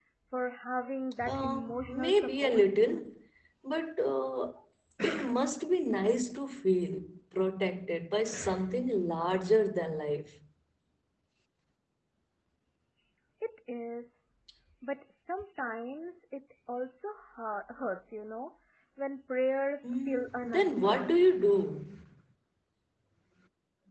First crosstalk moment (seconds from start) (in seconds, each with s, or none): 1.2 s